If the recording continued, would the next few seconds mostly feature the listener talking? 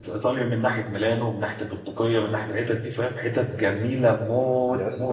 Yes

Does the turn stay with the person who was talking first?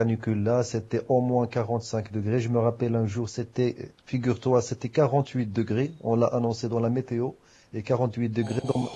Yes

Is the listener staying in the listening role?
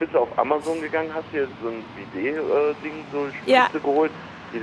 Yes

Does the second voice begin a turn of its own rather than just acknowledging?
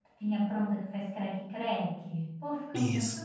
Yes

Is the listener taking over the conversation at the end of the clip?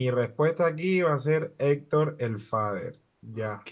Yes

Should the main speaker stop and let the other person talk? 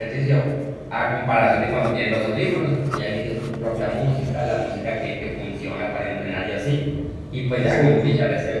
No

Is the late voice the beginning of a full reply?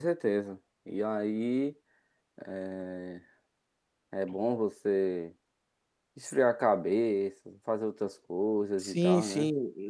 Yes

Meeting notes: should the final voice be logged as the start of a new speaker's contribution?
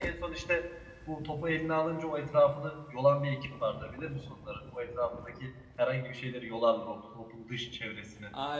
Yes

